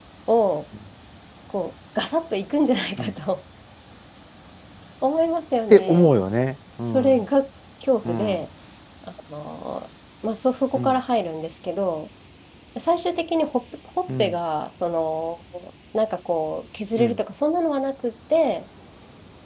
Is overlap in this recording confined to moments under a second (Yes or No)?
Yes